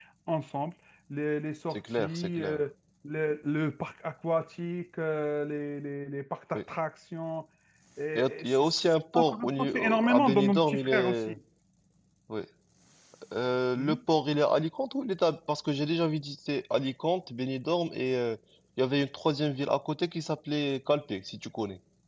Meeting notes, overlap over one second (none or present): present